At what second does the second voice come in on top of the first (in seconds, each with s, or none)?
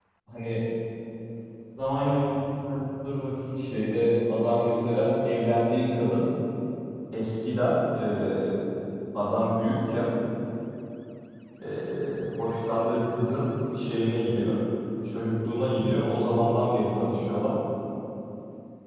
none